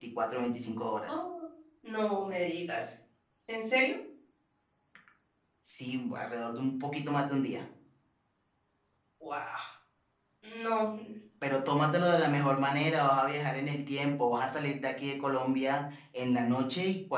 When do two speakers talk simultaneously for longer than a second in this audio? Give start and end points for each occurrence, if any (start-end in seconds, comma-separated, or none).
none